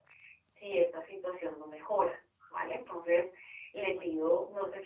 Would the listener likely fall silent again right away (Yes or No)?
Yes